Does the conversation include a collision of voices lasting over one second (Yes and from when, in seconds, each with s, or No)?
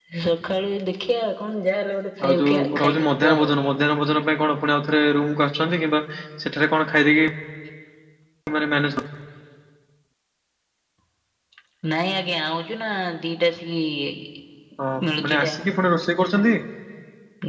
Yes, from 2.3 s